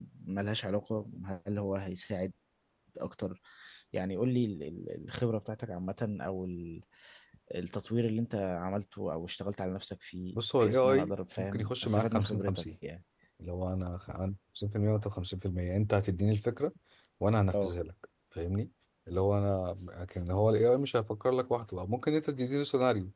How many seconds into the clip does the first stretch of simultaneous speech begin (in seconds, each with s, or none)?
10.6 s